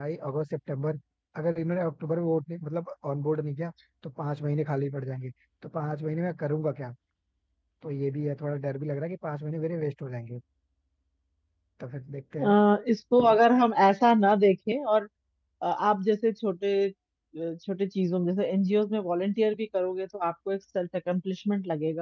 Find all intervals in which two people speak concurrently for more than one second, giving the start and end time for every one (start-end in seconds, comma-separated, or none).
none